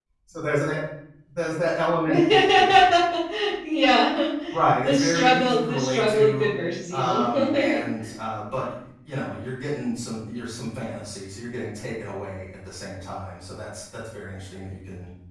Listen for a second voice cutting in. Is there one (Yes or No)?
Yes